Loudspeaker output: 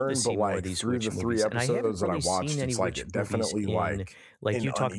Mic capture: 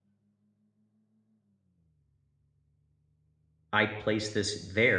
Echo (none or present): none